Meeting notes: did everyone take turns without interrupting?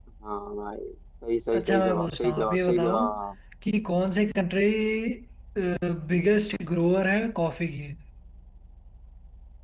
No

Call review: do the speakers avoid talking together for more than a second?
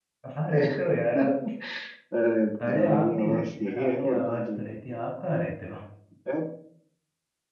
No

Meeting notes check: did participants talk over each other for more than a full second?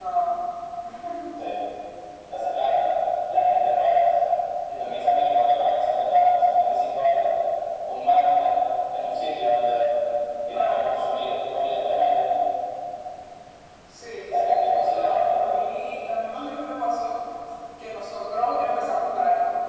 Yes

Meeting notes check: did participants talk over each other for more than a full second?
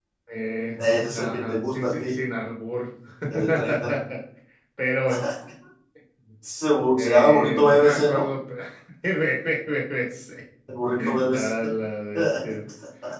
Yes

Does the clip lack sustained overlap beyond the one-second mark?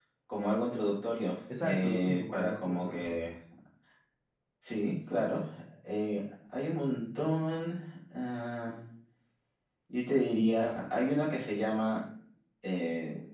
No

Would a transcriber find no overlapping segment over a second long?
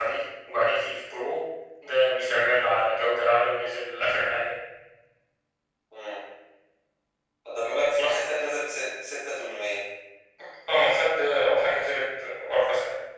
Yes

